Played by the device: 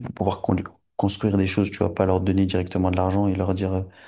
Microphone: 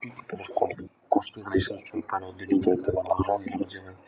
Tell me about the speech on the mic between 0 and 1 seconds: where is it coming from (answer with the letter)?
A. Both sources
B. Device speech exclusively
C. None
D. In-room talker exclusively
B